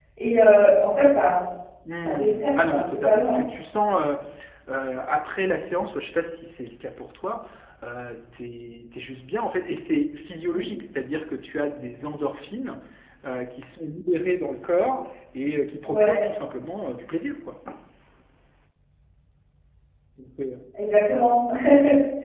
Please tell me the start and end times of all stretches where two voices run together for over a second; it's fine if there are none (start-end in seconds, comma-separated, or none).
2.0-3.4